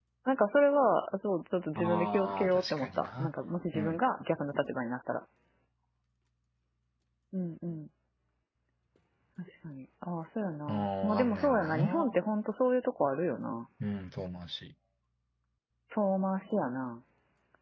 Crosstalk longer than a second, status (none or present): present